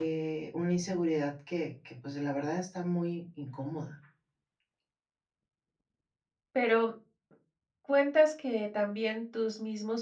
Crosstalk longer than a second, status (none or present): none